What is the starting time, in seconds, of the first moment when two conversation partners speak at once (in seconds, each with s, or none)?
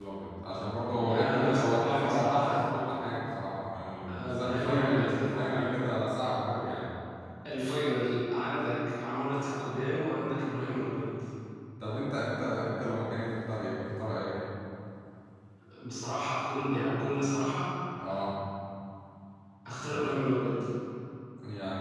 1.1 s